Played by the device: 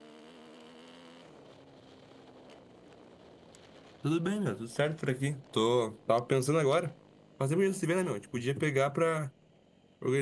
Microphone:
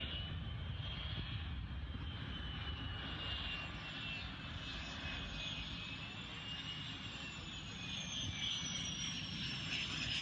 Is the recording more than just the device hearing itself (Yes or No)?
No